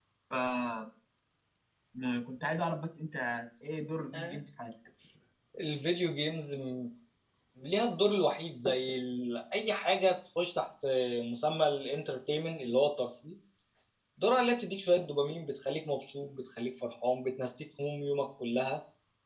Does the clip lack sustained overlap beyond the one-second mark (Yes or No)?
Yes